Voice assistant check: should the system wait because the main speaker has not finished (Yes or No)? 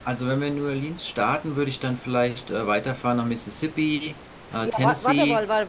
No